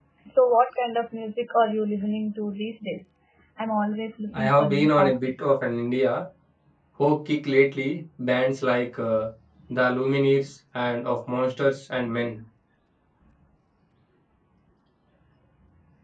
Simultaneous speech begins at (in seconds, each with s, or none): 4.3 s